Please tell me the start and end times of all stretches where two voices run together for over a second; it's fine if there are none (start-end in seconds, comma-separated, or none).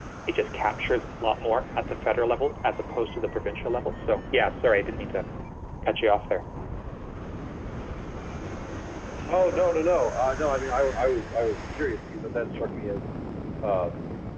none